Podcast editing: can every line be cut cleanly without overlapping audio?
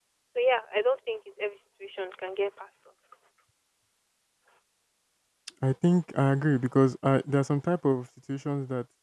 Yes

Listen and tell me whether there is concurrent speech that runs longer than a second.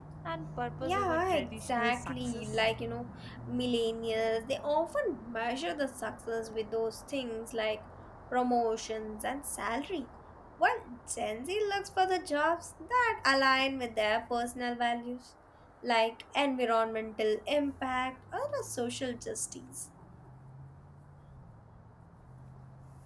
Yes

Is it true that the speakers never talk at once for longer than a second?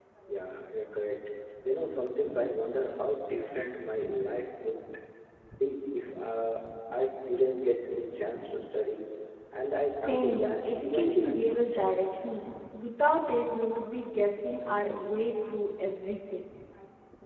No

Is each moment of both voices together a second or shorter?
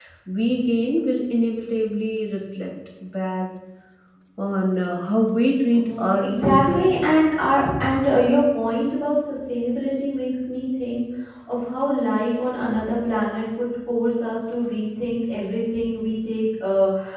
No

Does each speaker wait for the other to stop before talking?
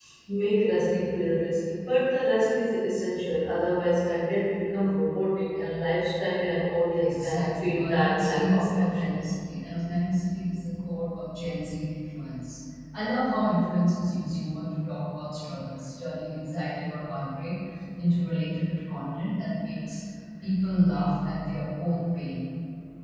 No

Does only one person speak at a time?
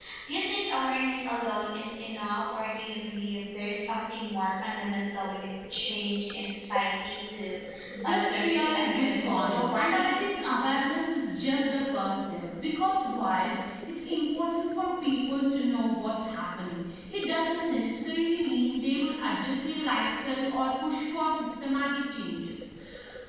No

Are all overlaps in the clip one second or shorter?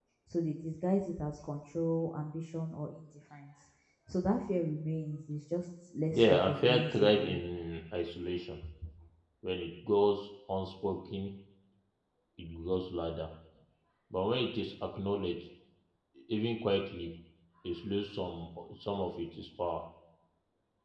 No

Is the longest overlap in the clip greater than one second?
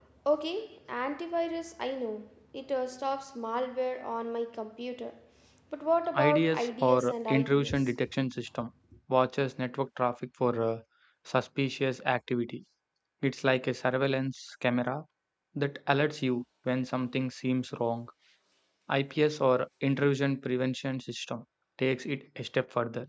Yes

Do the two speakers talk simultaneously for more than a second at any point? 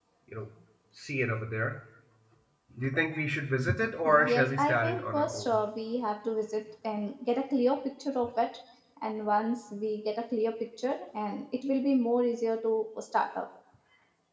Yes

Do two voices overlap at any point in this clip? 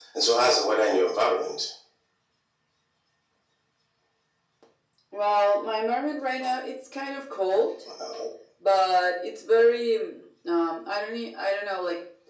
No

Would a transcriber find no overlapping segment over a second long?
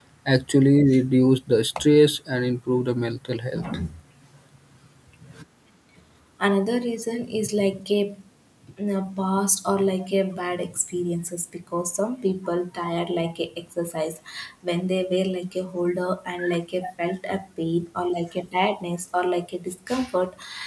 Yes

